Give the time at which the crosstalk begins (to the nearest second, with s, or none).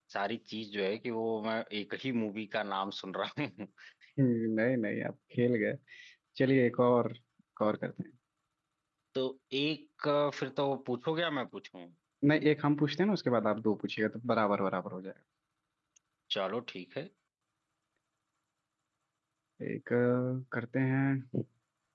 none